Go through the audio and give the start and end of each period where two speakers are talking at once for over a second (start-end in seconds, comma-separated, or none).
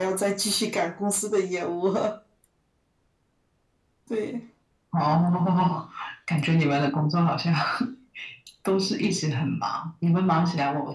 none